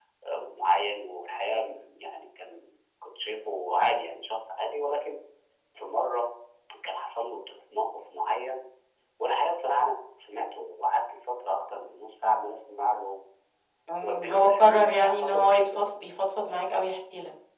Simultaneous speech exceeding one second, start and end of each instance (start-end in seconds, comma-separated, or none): 14.0-15.8